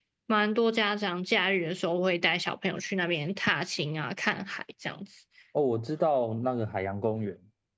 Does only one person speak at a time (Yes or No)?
Yes